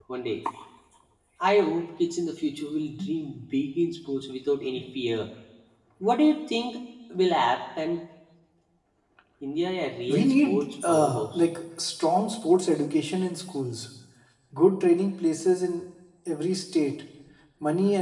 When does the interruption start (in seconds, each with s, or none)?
10.1 s